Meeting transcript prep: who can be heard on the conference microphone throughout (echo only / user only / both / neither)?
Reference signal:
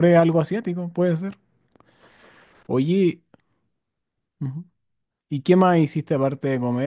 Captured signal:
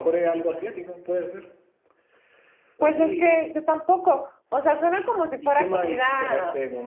both